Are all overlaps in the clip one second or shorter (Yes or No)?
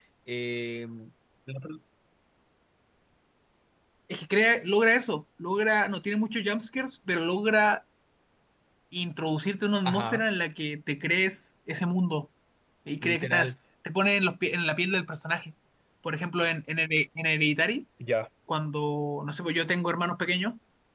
Yes